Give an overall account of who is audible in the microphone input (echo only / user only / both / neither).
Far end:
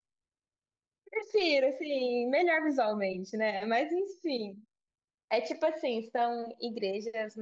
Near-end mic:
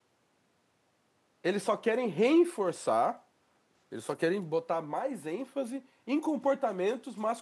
user only